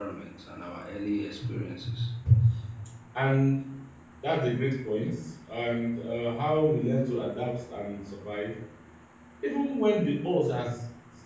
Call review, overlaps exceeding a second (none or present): none